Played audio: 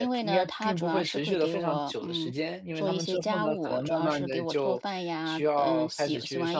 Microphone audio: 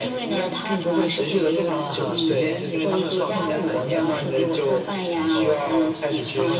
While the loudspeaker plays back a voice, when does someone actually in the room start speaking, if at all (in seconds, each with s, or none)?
1.9 s